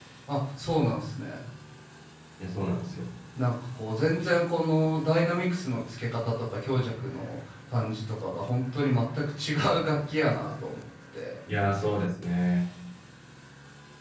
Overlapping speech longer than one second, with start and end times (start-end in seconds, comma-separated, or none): none